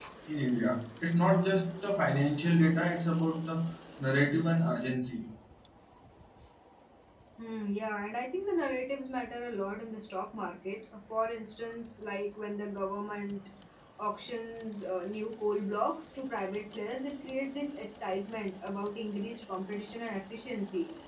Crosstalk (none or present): none